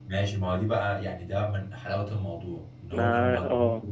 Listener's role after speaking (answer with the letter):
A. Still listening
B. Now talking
A